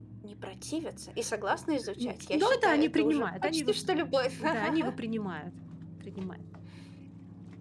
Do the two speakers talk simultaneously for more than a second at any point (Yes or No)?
Yes